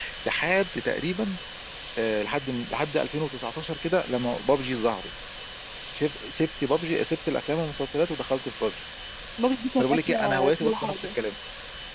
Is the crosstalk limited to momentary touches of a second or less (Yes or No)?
No